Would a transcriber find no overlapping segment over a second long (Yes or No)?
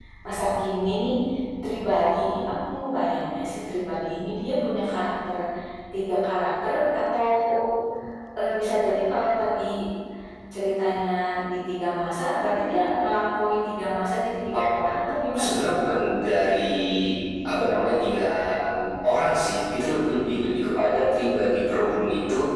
Yes